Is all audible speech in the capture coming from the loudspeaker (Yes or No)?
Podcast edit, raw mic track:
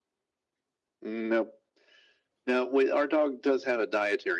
Yes